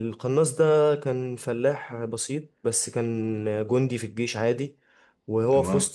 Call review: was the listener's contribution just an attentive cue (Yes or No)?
Yes